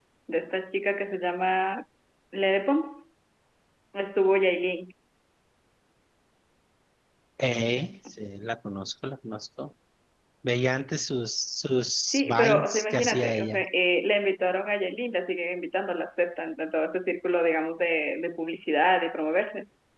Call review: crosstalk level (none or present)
present